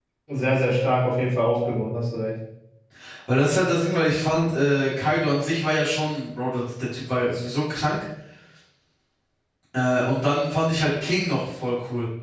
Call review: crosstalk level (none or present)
none